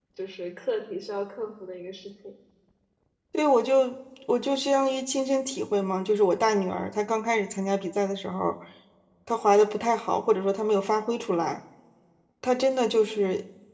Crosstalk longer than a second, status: none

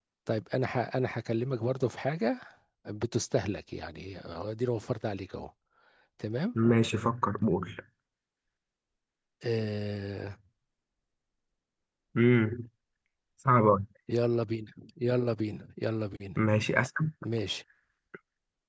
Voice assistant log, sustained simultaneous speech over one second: none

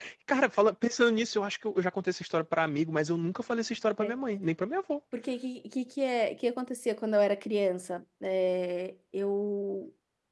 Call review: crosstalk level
none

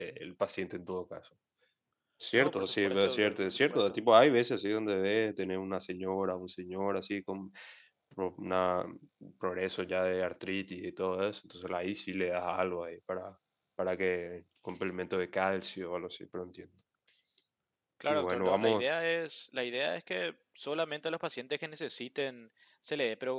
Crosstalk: present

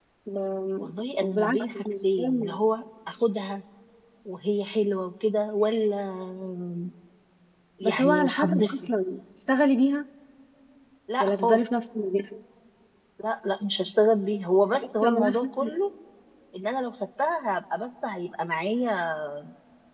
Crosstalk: present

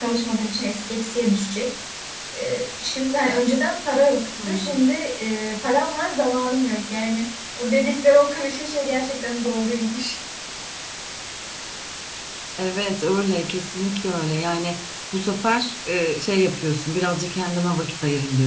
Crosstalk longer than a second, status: none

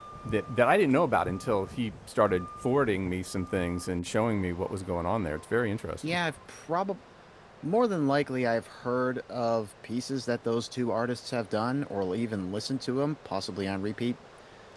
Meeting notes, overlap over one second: none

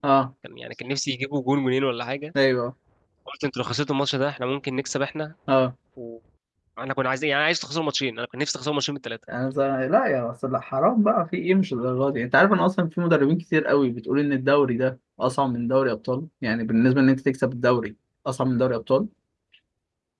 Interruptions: none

